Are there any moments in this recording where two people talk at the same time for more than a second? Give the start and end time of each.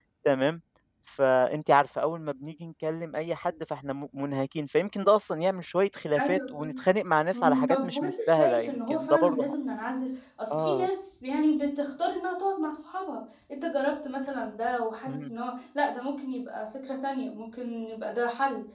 7.3-9.5

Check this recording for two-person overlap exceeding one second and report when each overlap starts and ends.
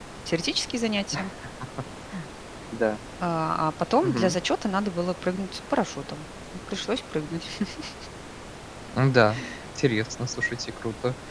none

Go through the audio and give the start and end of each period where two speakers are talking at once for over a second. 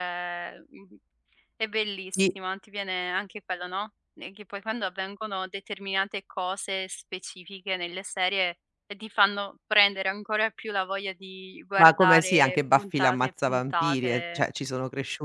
11.8-14.4

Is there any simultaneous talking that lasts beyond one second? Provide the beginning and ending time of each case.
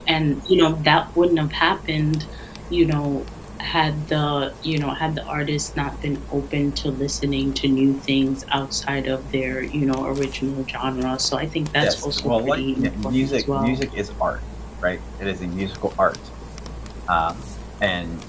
11.8-13.8

